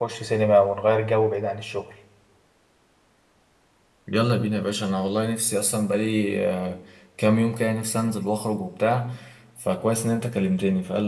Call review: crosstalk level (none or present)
none